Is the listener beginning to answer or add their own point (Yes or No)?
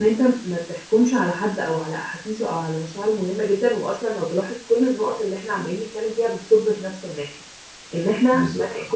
No